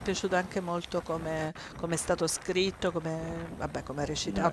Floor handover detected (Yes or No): No